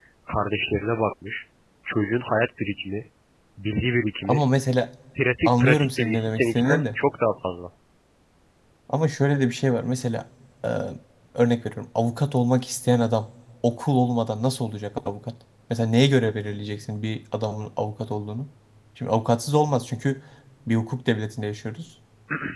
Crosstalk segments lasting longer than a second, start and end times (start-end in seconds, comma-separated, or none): 5.4-6.8